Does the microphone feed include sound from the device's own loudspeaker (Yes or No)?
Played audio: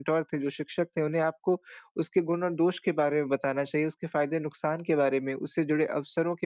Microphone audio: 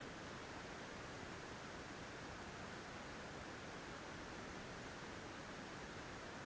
No